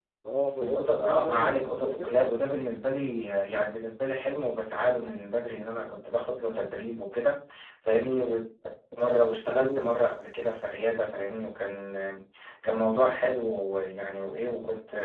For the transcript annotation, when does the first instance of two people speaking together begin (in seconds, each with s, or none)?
0.6 s